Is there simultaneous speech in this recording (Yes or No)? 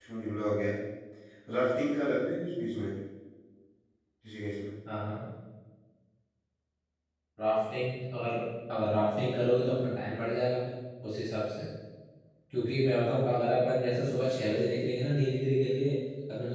No